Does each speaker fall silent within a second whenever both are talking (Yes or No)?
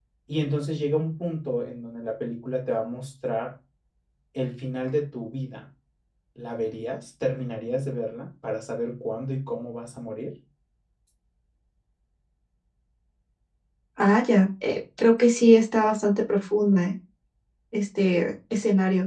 Yes